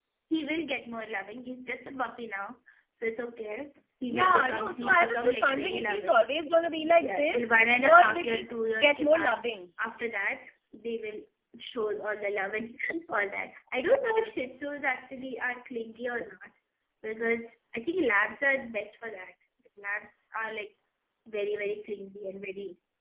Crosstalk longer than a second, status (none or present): present